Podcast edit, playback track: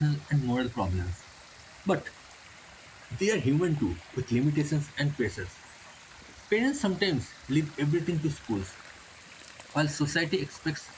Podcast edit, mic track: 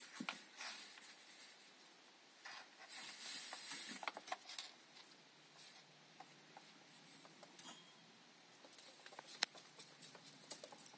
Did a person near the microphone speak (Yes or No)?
No